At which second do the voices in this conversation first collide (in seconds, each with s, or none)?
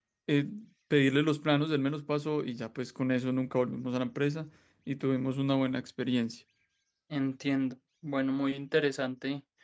none